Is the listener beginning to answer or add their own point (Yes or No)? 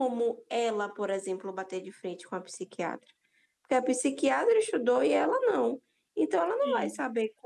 No